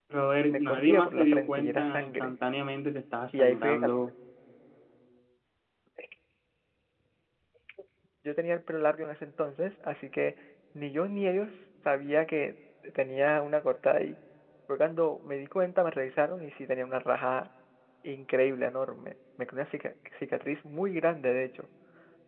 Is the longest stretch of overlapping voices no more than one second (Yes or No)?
No